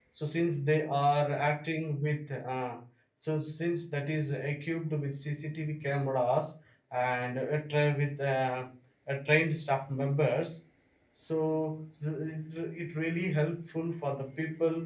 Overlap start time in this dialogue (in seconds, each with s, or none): none